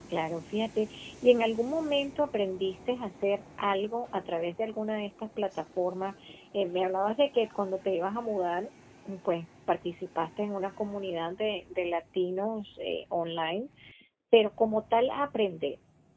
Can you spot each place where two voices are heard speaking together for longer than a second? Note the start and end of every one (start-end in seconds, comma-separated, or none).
none